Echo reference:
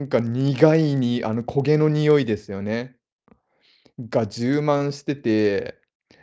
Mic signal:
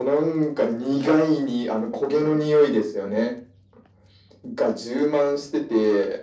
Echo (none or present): present